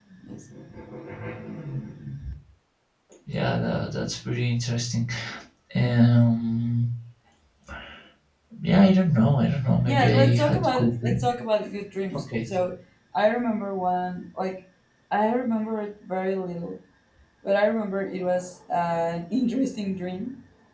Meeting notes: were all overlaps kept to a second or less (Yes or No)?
No